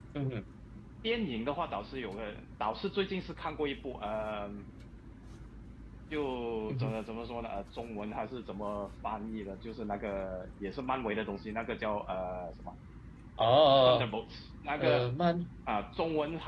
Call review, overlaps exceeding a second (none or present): none